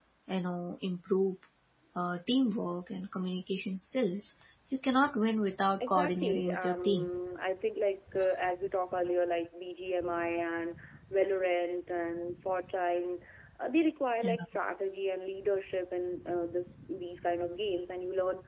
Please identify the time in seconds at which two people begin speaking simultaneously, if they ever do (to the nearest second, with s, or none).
6 s